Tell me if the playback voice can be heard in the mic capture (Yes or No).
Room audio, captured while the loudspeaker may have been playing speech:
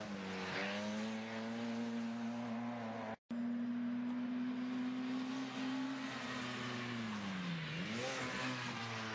No